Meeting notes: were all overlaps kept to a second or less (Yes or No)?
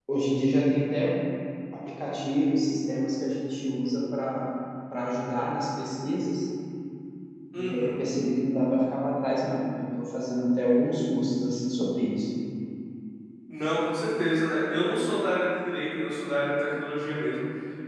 Yes